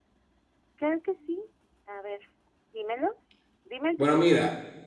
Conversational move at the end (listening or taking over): taking over